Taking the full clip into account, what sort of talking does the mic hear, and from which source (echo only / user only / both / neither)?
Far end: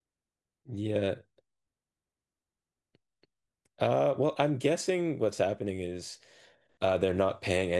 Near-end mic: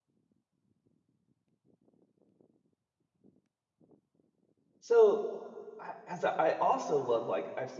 user only